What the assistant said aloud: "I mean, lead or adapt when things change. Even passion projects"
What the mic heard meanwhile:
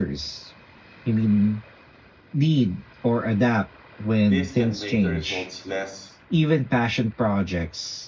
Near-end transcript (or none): these can make the results less